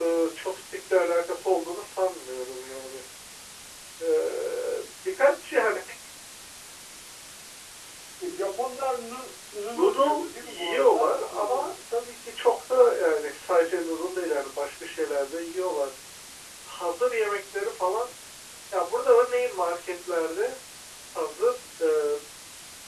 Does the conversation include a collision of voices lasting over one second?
Yes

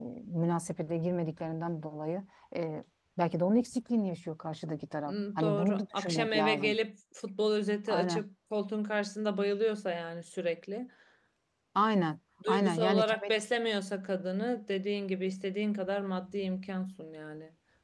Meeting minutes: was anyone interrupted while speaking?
Yes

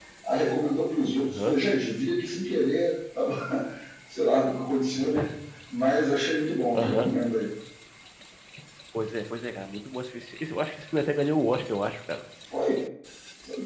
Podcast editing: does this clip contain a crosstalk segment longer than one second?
No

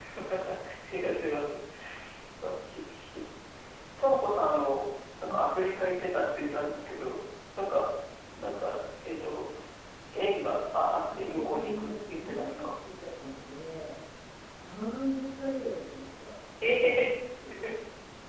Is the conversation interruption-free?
No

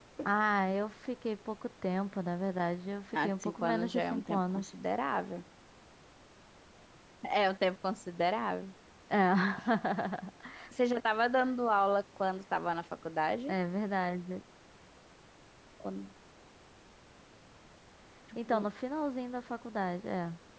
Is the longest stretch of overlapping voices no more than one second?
No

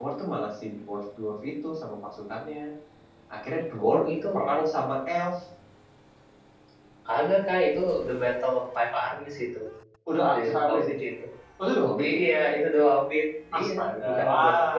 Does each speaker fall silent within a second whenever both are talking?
No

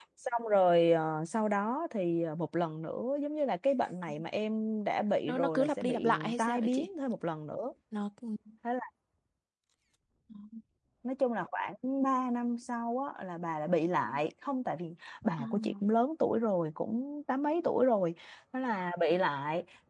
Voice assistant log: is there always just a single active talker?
No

